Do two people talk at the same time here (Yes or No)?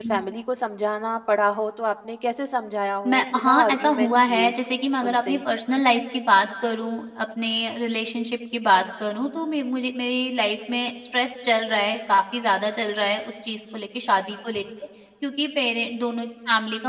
Yes